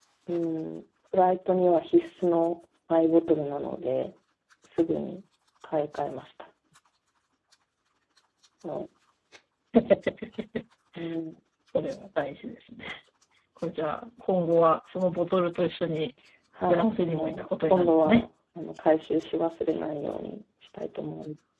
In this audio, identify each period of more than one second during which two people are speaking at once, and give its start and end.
16.7-18.2

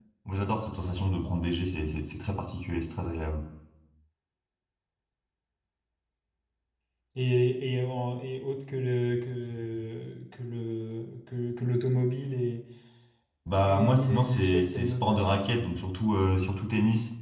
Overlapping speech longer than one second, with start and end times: 13.6-15.4

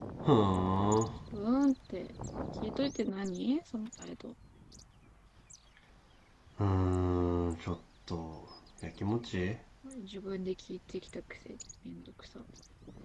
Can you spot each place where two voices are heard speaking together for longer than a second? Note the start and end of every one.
none

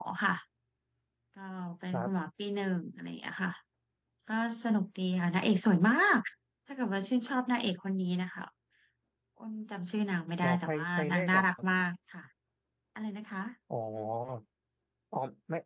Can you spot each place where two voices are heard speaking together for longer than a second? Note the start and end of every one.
10.4-11.7

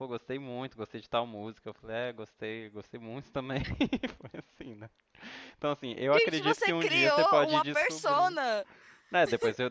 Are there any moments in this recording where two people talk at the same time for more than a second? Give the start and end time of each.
6.1-8.3

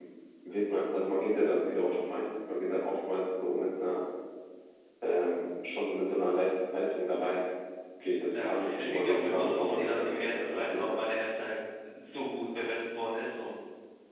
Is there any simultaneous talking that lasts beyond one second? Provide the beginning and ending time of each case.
8.3-11.0

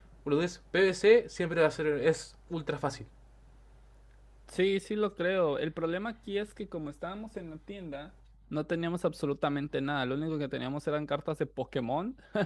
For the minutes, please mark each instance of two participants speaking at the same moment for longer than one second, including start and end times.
none

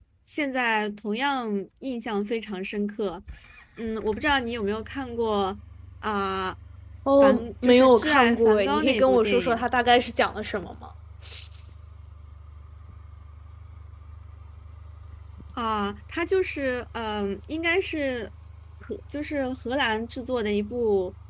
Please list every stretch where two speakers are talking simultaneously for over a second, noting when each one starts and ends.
7.2-9.6

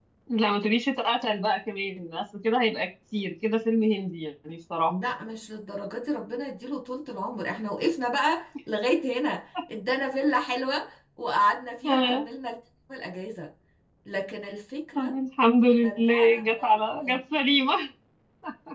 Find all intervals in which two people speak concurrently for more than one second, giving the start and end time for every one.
15.8-17.2

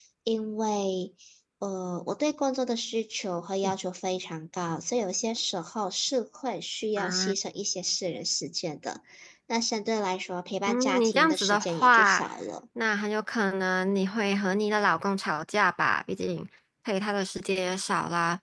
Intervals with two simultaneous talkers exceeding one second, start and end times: 10.7-12.2

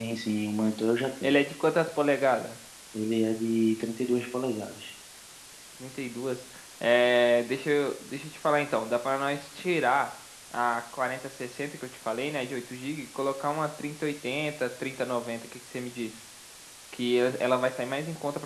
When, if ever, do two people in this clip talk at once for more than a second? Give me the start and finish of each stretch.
none

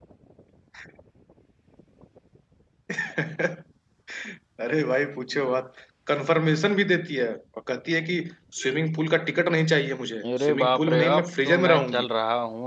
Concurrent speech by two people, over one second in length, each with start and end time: 10.2-12.1

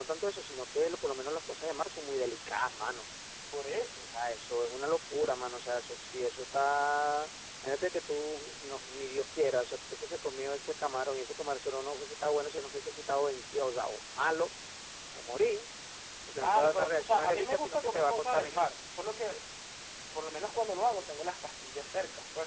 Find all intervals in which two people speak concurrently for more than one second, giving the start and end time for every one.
16.4-18.6

